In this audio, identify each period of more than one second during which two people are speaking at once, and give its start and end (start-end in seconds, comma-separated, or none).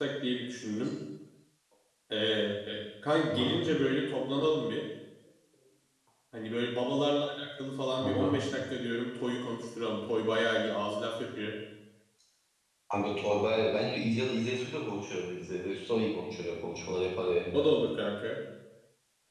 none